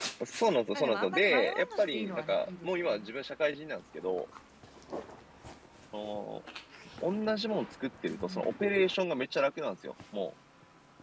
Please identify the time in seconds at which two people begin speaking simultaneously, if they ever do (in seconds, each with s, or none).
0.7 s